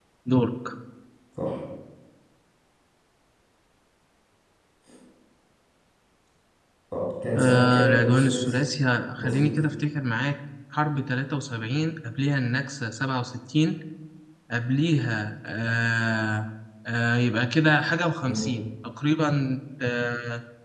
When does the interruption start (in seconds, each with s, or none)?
7.3 s